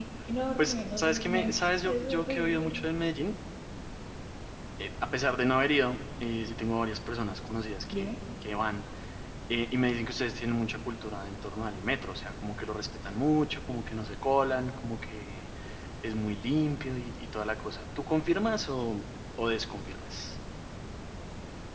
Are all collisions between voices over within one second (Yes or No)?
No